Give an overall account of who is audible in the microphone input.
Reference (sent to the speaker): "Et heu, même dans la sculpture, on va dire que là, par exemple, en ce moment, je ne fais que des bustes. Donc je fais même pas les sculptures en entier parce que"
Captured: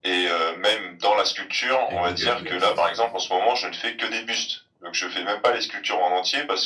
both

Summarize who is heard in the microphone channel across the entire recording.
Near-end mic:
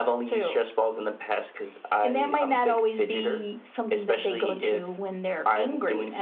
echo only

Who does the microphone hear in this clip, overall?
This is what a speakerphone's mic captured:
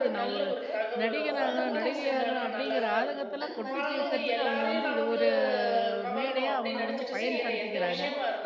both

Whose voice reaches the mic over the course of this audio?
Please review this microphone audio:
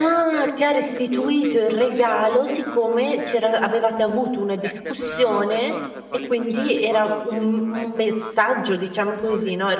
both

